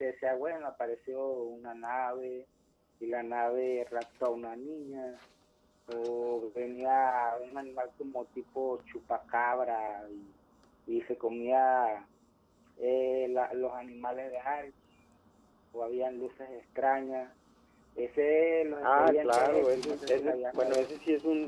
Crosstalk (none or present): present